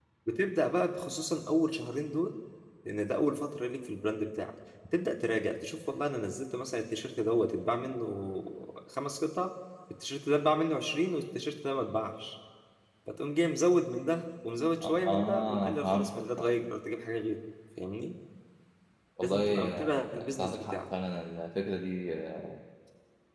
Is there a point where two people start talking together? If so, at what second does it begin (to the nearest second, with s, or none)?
15 s